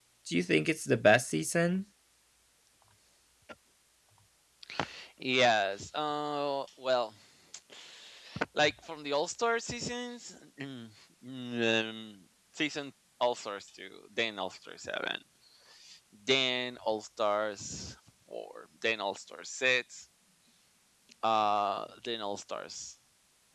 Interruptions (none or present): none